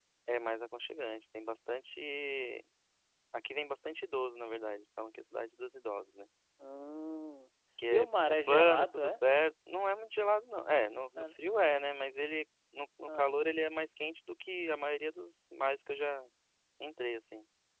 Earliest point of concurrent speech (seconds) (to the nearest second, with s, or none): 8 s